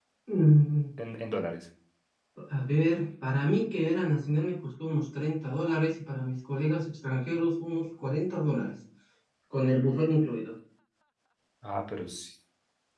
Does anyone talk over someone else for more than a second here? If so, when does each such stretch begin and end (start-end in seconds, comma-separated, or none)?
none